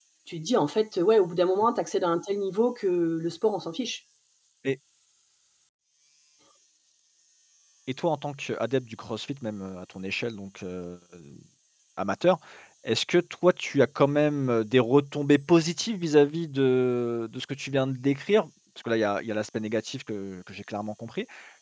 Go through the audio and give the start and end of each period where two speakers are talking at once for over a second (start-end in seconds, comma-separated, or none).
none